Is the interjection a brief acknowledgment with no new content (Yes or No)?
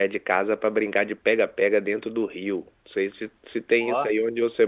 Yes